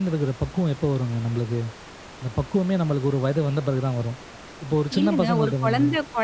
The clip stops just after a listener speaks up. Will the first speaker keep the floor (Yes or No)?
No